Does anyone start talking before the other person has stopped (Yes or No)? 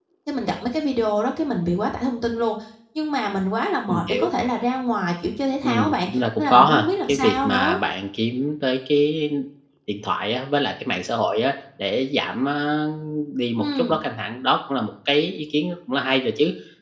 Yes